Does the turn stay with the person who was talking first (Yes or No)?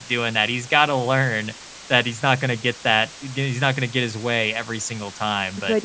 No